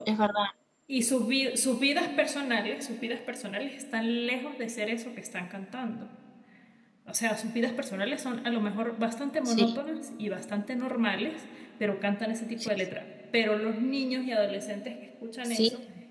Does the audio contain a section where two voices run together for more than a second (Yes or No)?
No